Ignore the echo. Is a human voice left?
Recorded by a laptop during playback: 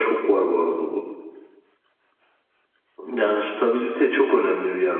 No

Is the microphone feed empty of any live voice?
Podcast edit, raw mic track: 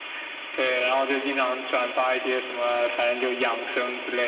Yes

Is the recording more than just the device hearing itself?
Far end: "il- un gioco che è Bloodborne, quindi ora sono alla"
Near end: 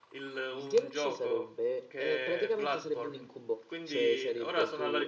Yes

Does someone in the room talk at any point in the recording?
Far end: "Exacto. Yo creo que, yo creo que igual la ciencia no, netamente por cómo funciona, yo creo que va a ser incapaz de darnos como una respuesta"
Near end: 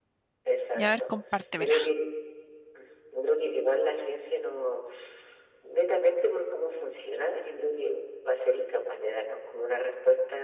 Yes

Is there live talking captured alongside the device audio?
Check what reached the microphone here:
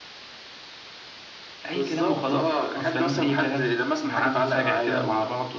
Yes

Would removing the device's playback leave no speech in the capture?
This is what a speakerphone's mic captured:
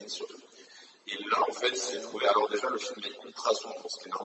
No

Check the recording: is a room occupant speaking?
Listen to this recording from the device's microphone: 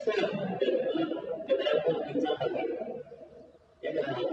No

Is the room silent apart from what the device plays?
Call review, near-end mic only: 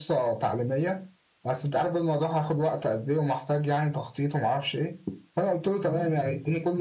Yes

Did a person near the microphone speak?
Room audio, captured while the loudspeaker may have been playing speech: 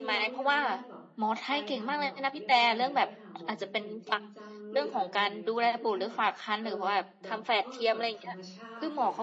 Yes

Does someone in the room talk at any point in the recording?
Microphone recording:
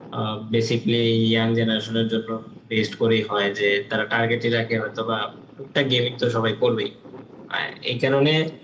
No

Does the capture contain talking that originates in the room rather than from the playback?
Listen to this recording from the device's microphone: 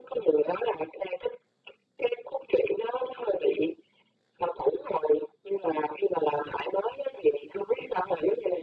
No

